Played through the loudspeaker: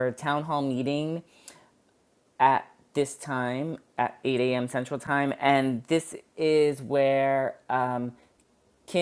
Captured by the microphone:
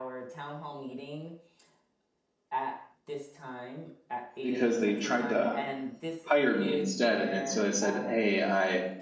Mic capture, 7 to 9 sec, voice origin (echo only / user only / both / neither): both